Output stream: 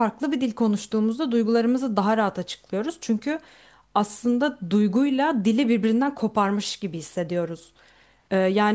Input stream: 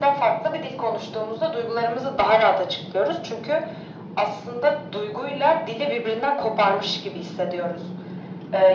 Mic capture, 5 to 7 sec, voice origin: echo only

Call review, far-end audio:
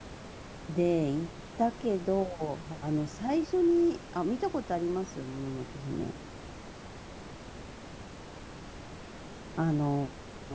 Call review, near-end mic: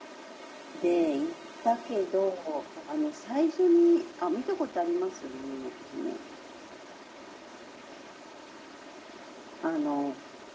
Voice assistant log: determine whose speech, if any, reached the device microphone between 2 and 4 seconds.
echo only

